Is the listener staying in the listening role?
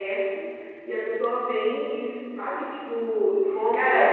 Yes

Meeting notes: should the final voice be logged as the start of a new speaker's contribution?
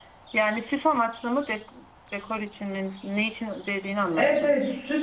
Yes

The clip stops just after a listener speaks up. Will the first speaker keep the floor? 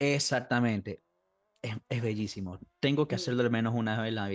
Yes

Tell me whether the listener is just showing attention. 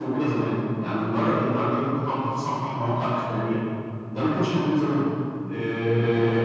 Yes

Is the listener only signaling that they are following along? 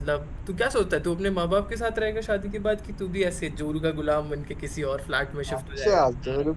No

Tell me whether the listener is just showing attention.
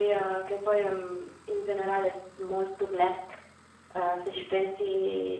Yes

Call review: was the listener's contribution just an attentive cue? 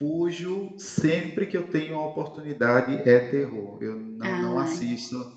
Yes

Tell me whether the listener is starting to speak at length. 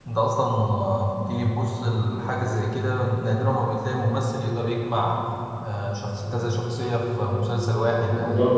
No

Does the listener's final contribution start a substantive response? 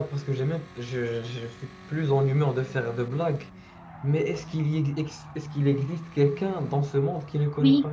Yes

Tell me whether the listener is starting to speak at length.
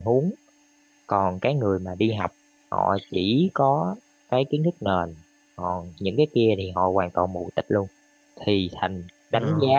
No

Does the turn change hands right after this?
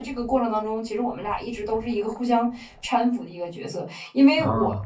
No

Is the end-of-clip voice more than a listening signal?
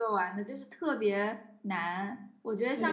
No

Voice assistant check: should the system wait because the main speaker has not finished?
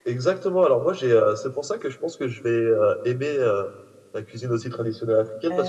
Yes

